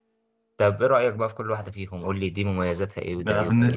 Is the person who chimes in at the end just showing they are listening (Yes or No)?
No